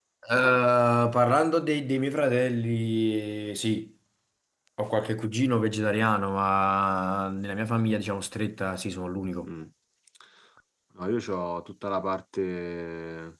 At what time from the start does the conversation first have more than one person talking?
none

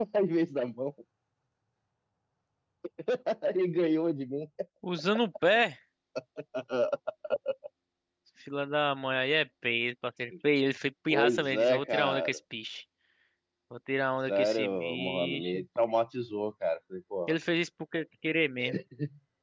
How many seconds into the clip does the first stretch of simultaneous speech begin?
11.1 s

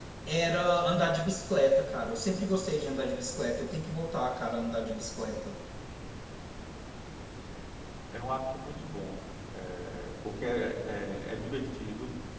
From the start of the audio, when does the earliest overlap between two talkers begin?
none

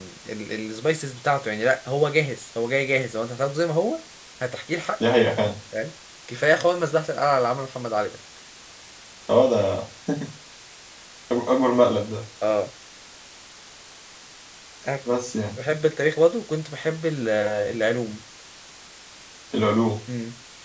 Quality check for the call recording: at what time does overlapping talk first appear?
none

